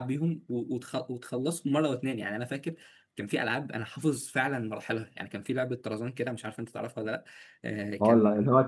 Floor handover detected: Yes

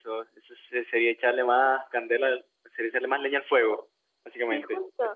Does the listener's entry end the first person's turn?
Yes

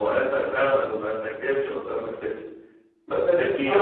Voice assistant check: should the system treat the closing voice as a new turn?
No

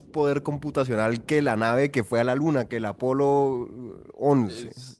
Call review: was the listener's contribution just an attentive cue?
No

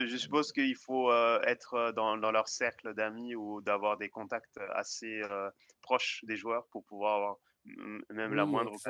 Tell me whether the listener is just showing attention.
No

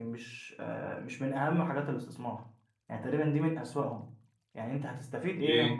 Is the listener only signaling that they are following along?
Yes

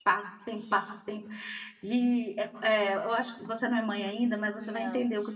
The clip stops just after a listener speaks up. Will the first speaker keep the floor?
Yes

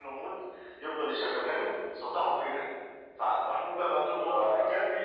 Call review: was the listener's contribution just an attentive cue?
Yes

